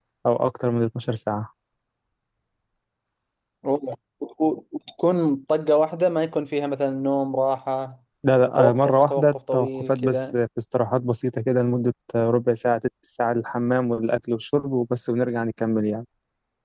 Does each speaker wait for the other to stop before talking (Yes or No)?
No